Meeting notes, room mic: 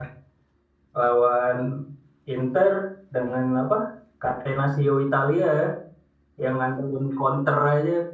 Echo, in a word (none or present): none